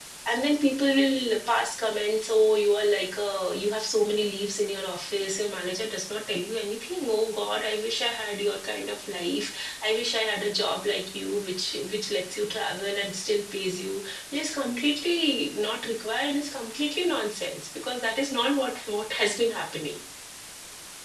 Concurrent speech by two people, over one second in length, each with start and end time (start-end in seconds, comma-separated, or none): none